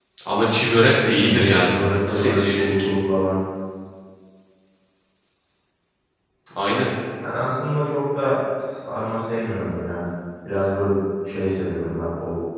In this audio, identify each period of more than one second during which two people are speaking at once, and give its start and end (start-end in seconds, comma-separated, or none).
1.2-2.9